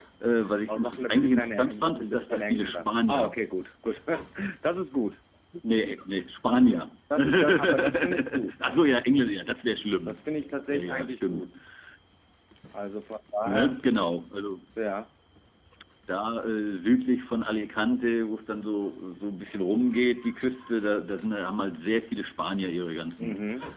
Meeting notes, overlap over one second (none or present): present